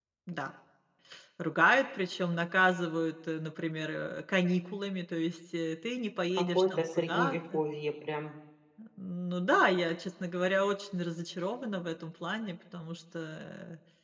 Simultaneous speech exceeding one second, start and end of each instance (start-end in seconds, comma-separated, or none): 6.4-7.6